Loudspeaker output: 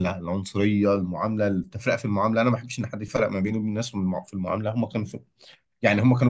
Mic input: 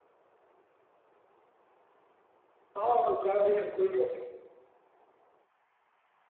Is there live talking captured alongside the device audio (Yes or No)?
Yes